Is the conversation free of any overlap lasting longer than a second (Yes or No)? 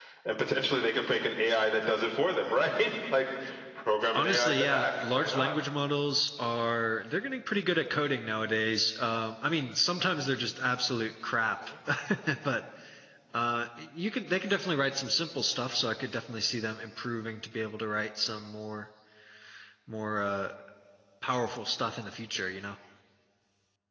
No